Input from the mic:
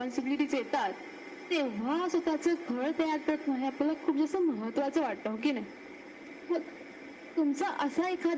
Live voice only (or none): none